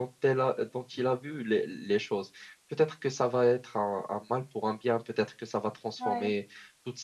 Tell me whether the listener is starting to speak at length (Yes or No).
No